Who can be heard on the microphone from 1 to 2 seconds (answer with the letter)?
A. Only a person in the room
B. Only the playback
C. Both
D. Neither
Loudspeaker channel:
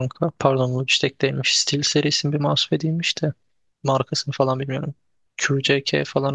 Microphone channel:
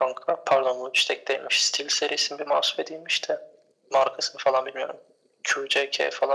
B